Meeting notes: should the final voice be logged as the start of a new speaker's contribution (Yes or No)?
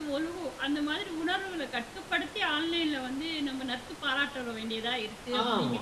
Yes